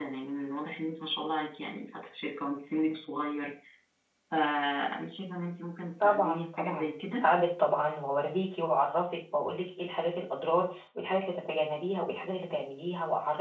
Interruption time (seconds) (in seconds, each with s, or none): 6.0 s